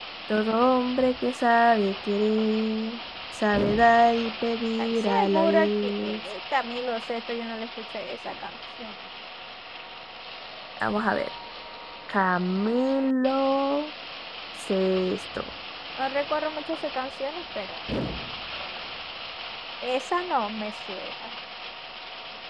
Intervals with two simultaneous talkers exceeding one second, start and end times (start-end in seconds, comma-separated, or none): 4.8-6.2